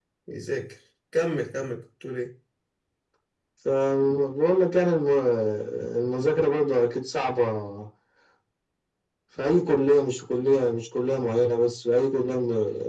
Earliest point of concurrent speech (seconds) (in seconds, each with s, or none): none